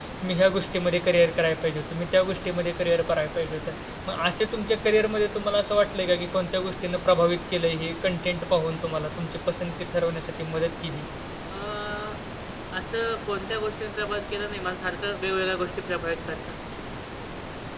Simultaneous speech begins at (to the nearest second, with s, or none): none